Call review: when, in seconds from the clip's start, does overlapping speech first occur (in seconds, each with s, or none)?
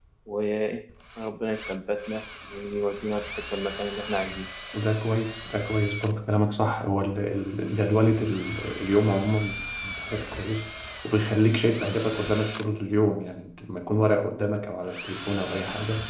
none